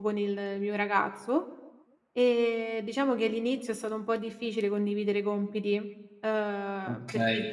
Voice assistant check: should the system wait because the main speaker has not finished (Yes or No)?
No